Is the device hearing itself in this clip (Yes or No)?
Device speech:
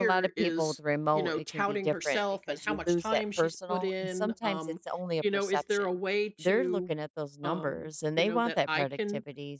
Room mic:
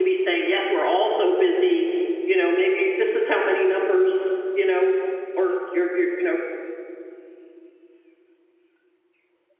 No